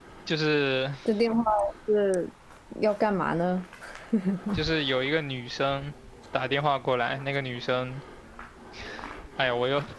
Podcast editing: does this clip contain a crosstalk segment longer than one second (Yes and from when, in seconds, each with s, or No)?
No